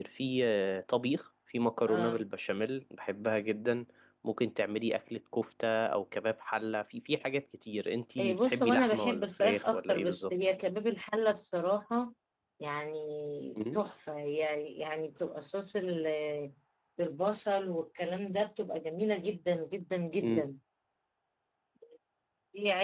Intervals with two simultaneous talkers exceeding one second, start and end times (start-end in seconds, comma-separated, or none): 8.2-10.3